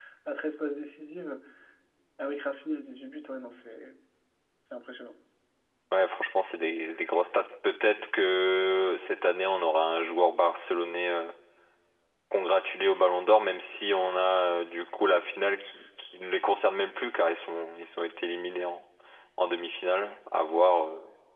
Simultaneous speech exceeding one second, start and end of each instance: none

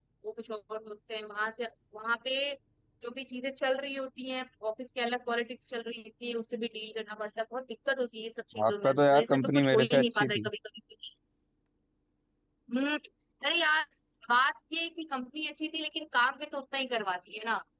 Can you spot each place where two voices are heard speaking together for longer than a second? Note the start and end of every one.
8.7-10.5

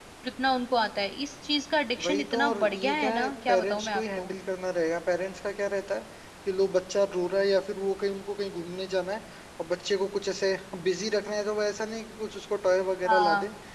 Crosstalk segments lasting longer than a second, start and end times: 2.0-4.3

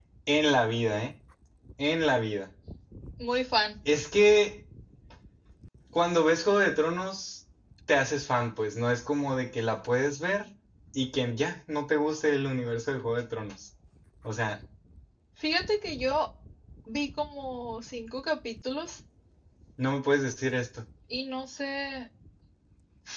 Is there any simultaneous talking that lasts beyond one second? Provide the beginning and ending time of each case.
none

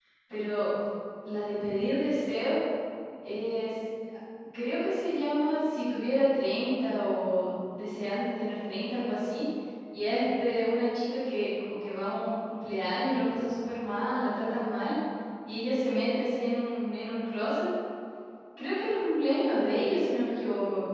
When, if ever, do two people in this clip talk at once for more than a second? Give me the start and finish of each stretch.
none

